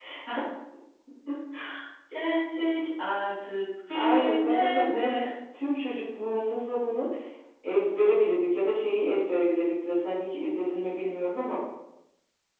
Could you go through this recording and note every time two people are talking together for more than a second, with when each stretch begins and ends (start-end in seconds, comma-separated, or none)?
3.9-5.3